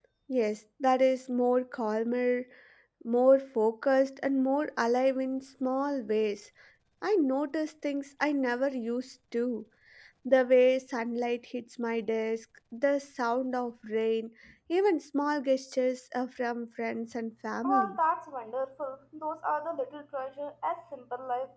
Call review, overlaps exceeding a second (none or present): none